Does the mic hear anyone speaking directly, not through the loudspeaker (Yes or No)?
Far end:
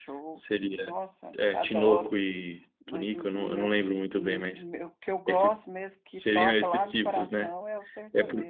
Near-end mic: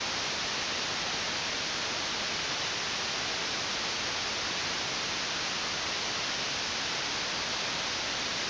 No